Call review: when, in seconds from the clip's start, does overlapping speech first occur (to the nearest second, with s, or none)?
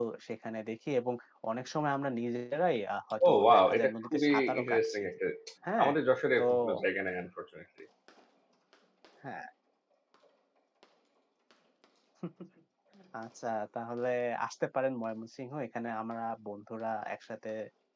3 s